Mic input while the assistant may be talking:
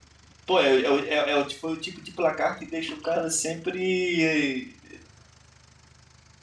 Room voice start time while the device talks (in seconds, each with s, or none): 0.4 s